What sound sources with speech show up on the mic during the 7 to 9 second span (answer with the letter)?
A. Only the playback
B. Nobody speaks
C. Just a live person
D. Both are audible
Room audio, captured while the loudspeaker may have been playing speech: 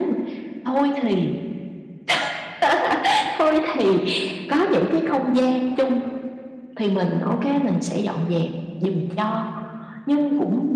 A